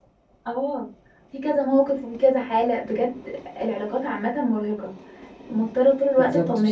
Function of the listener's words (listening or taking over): listening